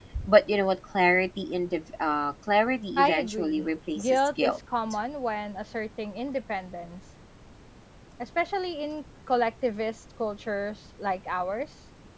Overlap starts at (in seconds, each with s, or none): 3.0 s